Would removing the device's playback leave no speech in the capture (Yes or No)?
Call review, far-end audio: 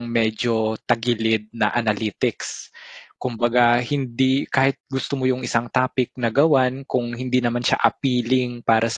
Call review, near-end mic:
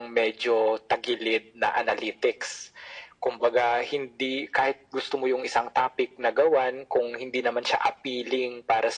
Yes